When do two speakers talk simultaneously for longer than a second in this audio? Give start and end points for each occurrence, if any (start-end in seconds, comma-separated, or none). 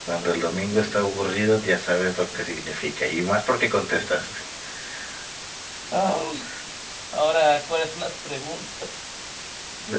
none